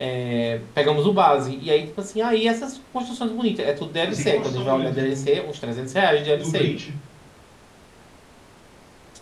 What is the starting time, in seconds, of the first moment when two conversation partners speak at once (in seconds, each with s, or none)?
4.0 s